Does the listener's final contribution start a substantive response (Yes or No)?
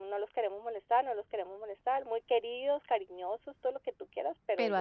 No